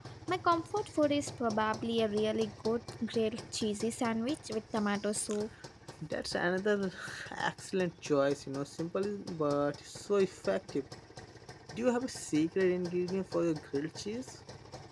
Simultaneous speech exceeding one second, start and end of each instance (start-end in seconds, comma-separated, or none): none